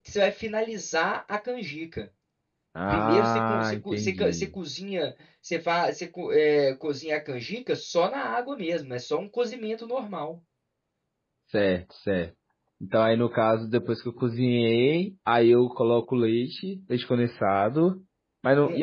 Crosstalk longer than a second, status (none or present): present